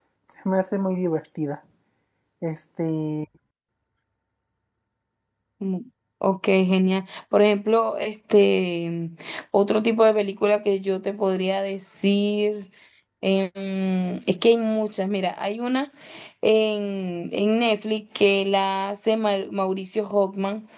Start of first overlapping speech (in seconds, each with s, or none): none